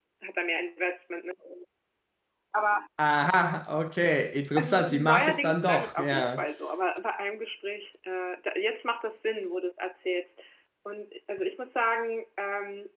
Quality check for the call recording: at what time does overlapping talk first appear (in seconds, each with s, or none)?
4.6 s